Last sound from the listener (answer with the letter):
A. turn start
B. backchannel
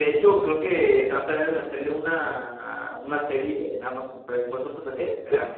A